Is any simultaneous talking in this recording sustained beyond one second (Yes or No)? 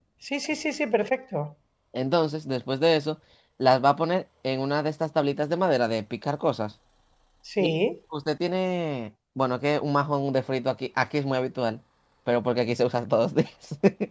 No